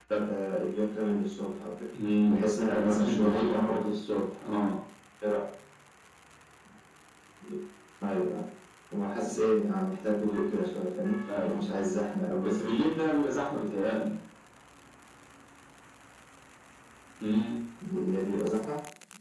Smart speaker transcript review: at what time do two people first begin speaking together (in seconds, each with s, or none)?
2.3 s